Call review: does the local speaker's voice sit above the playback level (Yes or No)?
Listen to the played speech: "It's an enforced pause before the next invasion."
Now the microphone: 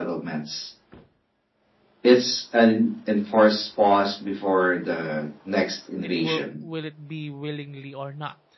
No